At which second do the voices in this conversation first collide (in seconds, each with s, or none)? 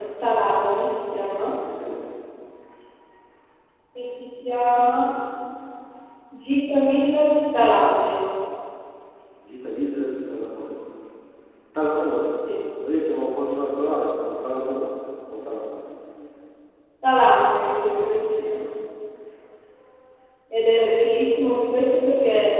none